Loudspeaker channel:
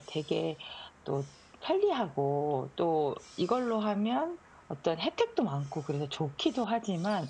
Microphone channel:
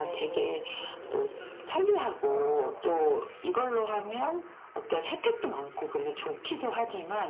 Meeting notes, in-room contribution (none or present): present